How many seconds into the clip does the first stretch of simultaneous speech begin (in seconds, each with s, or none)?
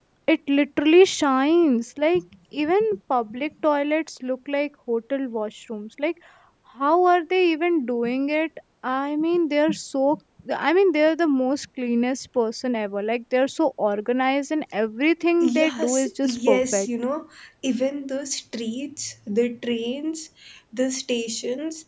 15.4 s